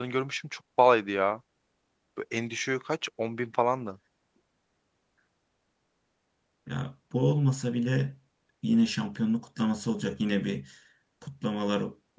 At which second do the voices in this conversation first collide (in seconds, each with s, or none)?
none